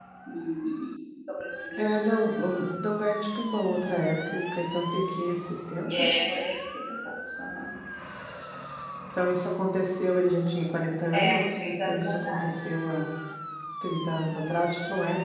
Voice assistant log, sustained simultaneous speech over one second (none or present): present